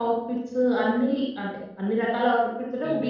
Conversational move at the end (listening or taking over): listening